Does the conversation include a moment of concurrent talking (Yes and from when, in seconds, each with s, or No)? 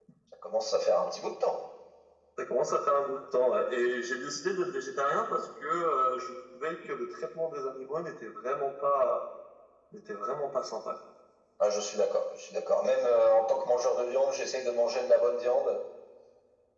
No